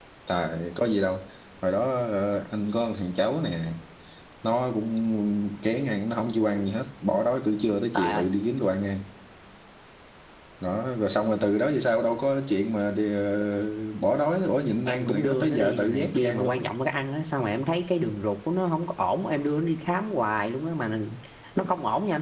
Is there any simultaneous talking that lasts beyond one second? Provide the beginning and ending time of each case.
14.8-16.7

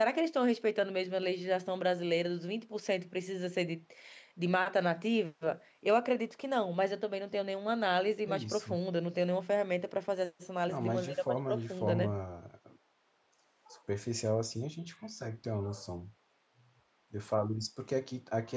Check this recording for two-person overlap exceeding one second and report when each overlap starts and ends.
10.7-12.2

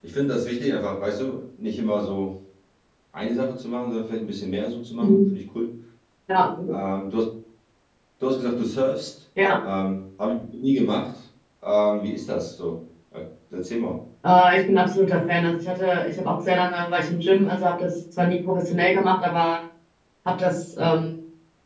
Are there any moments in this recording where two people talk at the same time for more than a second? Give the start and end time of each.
none

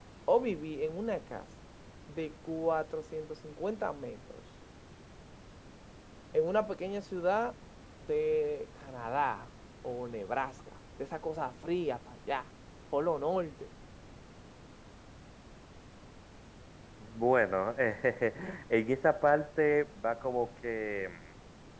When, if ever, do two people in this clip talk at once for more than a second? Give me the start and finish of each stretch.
none

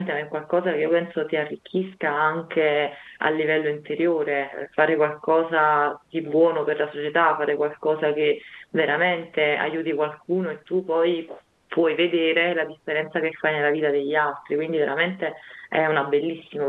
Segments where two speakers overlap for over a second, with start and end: none

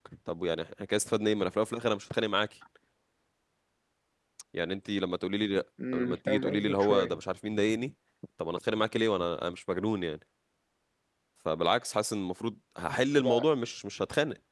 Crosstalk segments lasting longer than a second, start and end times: 5.9-7.1

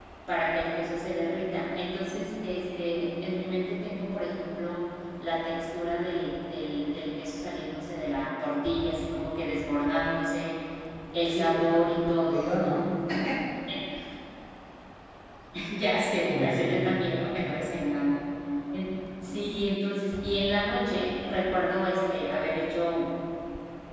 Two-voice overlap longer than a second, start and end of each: 11.3-12.8

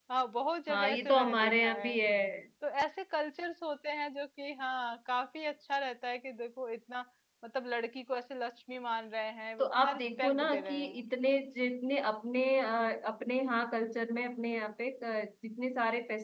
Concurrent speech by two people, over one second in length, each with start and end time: 0.7-2.0, 9.6-11.0

